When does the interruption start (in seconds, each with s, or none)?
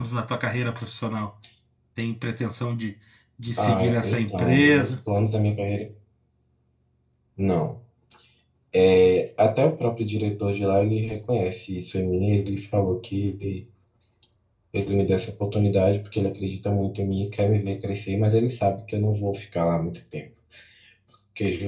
3.6 s